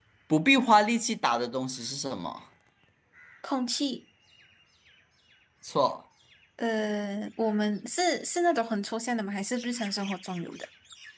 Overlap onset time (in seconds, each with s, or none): none